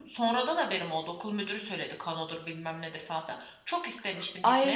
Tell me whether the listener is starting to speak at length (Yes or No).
Yes